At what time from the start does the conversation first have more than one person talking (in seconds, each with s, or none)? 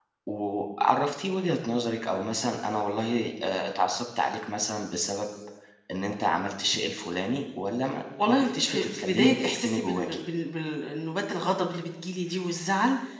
8.2 s